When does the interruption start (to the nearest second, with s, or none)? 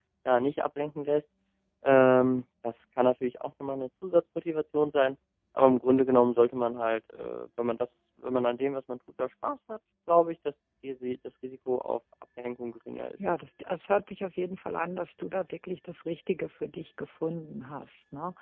none